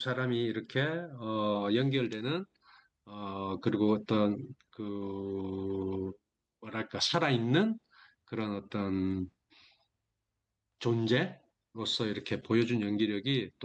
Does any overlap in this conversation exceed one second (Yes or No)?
No